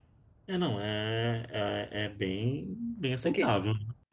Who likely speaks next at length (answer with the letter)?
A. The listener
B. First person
A